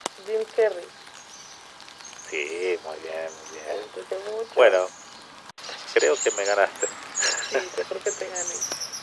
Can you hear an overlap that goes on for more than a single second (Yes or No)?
No